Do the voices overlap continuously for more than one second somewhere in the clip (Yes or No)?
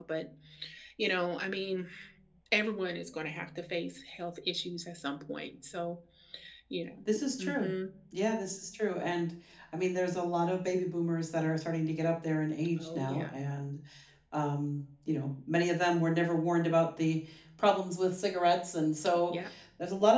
No